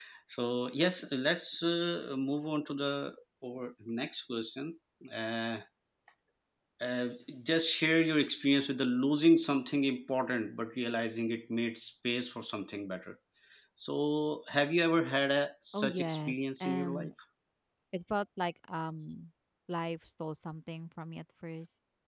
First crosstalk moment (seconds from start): 15.7 s

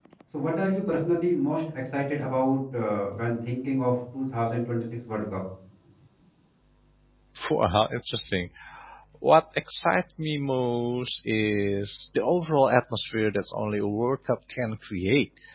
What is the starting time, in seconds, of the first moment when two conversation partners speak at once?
none

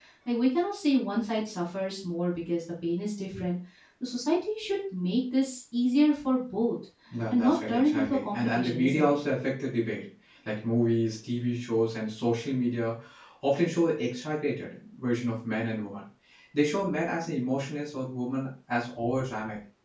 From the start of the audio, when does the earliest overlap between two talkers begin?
7.3 s

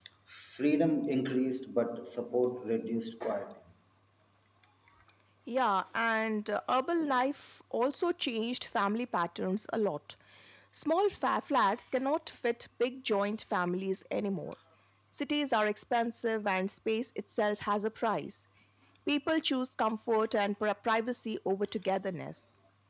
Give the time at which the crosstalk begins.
none

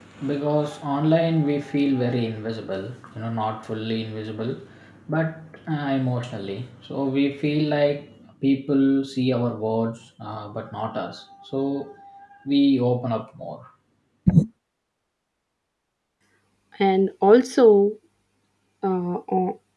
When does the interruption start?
none

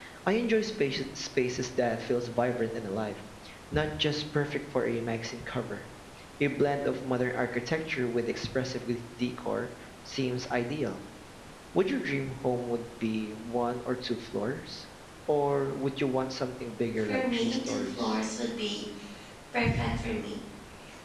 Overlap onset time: 17.0 s

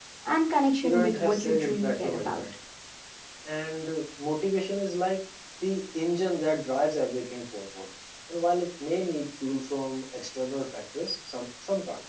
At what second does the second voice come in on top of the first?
0.8 s

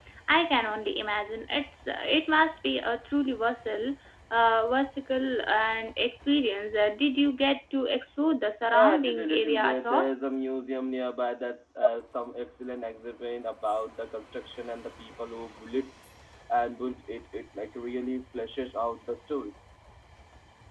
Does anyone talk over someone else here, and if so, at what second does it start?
8.7 s

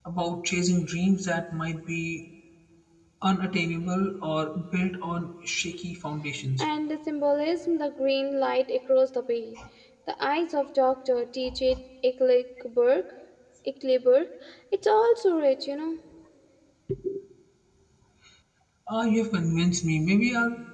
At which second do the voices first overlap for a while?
none

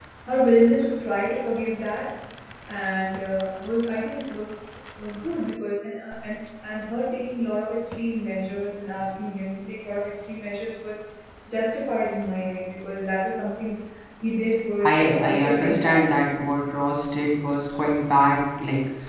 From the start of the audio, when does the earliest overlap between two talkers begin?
14.8 s

